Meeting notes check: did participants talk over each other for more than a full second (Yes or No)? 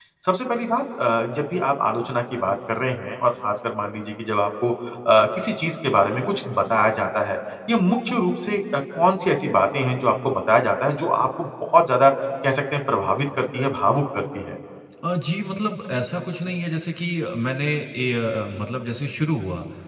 No